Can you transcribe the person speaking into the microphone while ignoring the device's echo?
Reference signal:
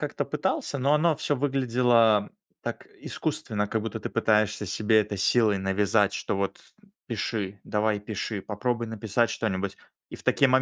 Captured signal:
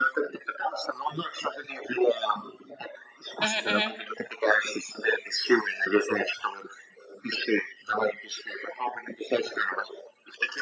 Мгм, мгм.

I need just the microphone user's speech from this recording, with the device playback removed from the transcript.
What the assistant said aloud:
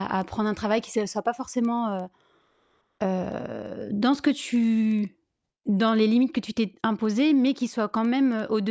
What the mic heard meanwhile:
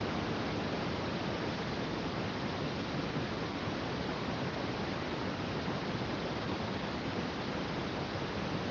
none

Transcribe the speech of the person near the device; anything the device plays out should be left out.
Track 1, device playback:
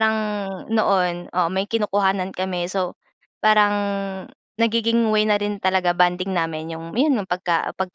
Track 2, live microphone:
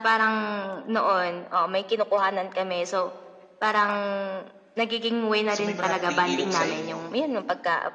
So, may malapit ding ilog sa inyo.

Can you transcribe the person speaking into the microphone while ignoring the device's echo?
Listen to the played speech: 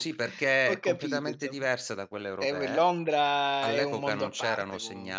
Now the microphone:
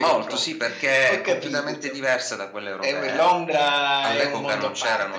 none

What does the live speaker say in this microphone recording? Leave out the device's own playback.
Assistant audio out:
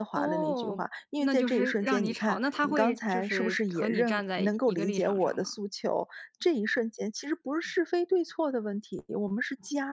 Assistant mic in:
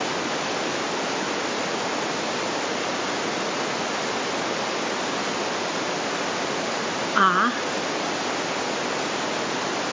啊？

